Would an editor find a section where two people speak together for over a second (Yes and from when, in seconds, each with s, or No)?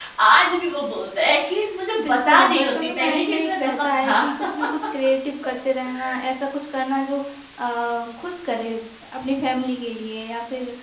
Yes, from 2.0 s